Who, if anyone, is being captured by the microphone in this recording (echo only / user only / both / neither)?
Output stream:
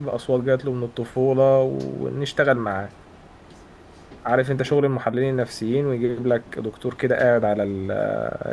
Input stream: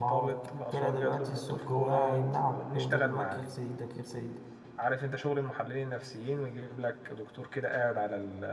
both